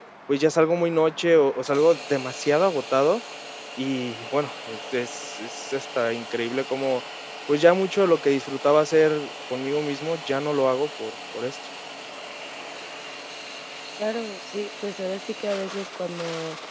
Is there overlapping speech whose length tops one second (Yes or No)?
No